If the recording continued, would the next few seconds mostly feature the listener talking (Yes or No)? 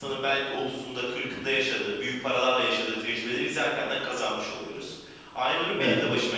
No